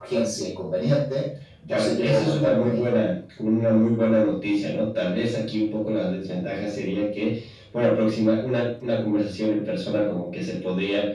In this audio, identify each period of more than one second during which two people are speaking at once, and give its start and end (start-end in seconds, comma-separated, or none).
1.7-2.9